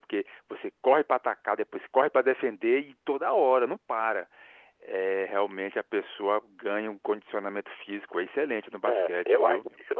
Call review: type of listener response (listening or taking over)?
taking over